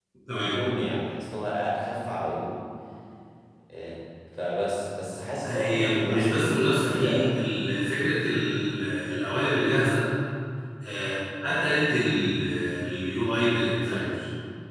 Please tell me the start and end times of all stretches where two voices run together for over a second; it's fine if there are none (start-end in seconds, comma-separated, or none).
5.4-7.3